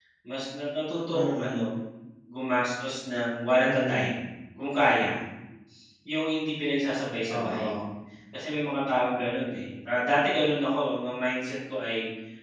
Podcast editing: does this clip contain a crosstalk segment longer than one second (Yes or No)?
No